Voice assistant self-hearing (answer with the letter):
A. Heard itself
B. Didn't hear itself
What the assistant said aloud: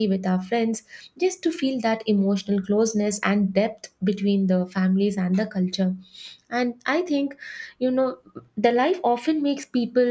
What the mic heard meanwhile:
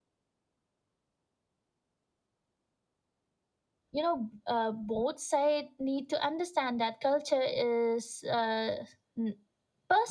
B